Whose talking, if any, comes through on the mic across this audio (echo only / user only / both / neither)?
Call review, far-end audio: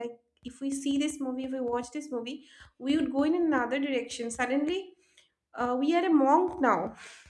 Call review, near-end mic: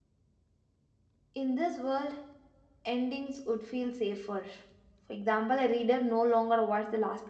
user only